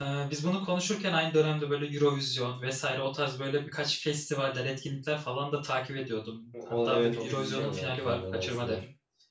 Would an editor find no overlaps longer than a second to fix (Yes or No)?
No